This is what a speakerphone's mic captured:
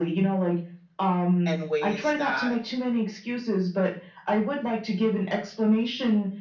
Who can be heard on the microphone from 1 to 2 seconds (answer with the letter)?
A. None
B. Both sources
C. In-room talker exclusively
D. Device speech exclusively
B